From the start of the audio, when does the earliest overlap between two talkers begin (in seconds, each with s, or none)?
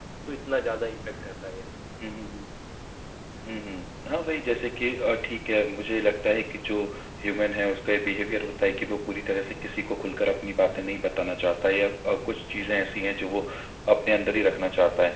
none